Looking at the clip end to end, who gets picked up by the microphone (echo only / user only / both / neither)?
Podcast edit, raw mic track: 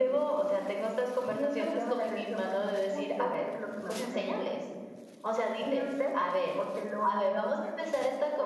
echo only